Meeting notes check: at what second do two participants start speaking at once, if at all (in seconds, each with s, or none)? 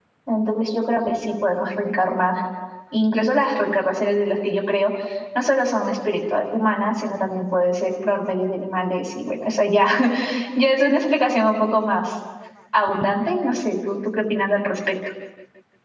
none